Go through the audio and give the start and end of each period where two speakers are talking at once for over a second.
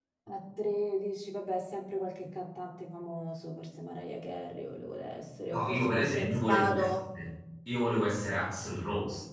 5.5-6.9

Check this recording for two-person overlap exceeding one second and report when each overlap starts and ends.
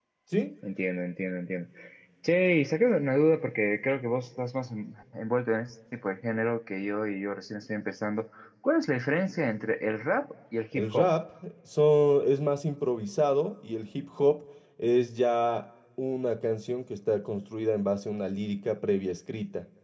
none

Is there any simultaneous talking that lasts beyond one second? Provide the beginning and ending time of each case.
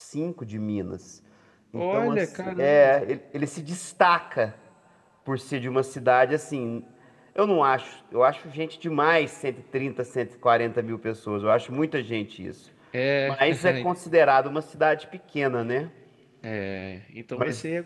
1.8-3.0

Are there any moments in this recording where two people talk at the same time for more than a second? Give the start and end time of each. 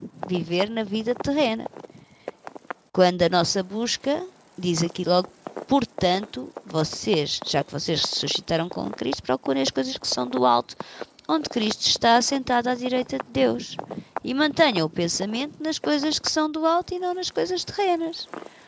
none

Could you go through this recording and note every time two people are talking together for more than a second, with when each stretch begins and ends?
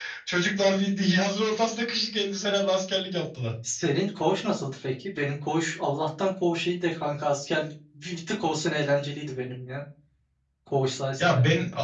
none

